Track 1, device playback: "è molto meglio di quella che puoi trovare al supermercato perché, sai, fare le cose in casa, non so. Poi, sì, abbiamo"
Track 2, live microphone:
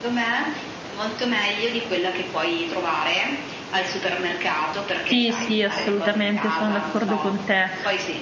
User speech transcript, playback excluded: Sì, sì, assolutamente, sono d'accordo con te.

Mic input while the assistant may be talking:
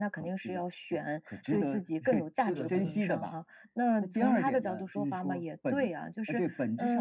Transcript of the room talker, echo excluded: 是的是的。

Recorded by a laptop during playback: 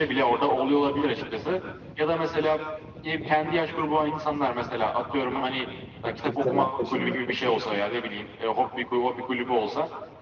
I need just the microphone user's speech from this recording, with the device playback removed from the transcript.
aktiviteler peşinde koşuyorsun.

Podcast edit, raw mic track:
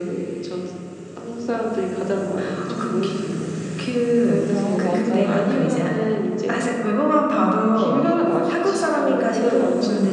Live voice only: 아. 맞아요.

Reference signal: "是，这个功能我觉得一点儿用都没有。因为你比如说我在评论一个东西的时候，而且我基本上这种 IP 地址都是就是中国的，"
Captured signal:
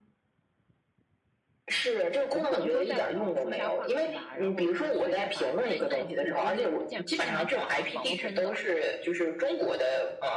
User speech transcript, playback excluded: 我不可能说在网上说瞎话，对吧，然后我我随便发，那那我就是键键盘侠了，网络喷子了。

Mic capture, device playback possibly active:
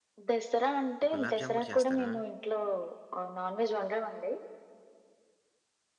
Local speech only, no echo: గులాబ్ జామ్ కూడా చేస్తారా?

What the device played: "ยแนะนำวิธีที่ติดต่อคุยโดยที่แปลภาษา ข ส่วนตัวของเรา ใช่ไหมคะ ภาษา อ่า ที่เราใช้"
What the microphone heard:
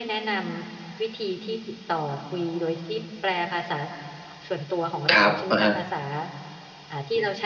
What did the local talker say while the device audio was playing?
ครับ อะฮะ

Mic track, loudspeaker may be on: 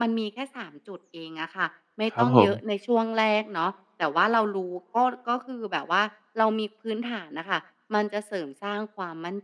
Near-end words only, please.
ครับผม

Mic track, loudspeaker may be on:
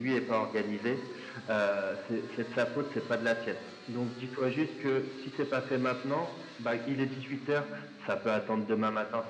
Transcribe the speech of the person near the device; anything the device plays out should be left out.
none

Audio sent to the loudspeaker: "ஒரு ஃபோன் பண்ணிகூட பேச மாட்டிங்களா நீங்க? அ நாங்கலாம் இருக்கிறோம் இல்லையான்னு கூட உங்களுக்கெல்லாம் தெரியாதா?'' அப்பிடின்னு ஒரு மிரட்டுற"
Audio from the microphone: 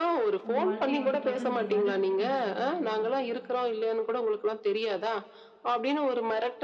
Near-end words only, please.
உங்க வாழ்க்கைய வந்து தொடர்ந்தீங்க? அத பத்தி கொஞ்சம் சொல்ல முடியுங்களா?

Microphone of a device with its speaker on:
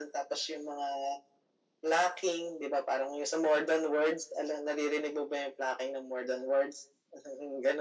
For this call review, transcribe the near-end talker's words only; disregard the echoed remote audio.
none

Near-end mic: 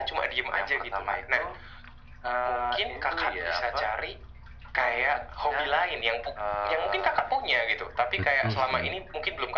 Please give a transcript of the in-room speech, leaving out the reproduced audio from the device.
Betul sih.

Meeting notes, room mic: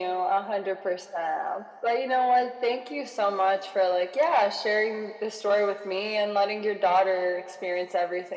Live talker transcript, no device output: none

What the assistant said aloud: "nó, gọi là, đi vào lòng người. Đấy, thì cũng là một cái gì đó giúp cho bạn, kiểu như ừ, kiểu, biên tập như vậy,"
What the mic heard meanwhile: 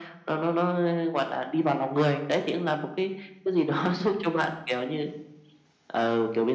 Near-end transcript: none

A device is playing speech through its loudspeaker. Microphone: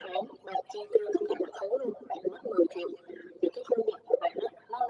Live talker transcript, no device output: none

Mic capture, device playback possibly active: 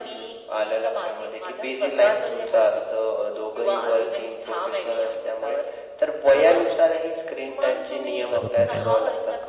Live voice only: बरोबर आहे ना.

